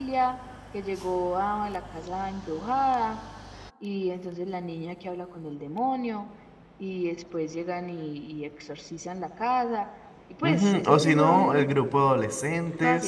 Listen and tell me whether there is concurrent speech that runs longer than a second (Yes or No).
Yes